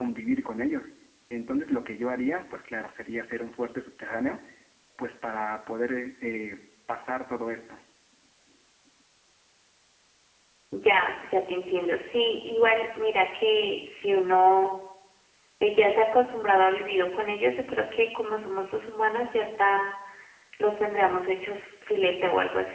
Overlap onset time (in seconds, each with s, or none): none